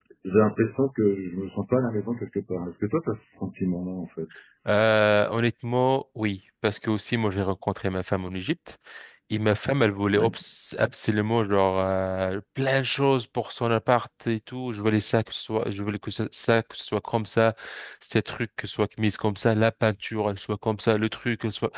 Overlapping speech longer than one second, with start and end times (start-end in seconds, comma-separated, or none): none